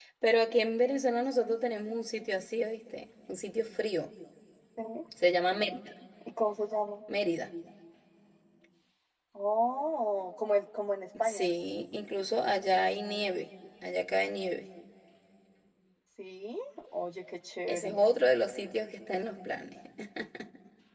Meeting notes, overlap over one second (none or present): none